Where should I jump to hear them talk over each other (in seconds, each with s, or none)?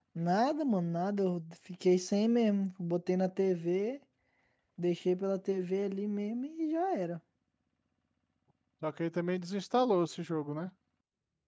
none